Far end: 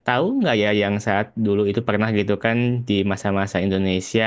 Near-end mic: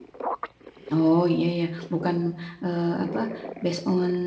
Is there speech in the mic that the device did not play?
Yes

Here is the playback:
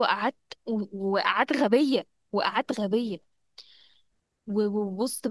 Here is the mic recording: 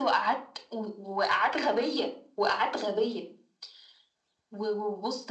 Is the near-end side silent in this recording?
Yes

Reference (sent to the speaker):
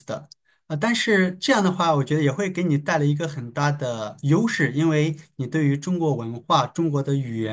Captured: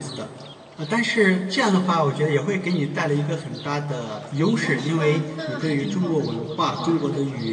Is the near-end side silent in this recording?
No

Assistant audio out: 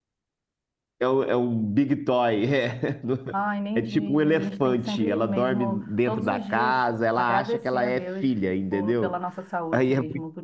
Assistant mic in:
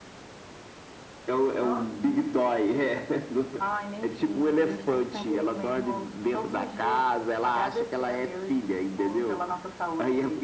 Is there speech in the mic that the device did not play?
Yes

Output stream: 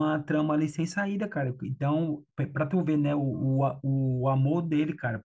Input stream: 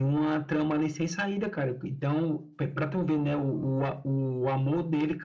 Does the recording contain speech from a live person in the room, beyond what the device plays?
No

